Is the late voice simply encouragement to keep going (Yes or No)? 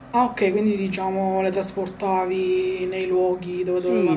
No